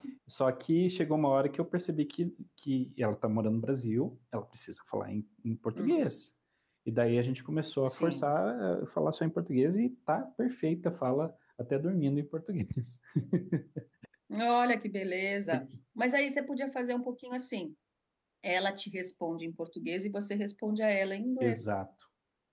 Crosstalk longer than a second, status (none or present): none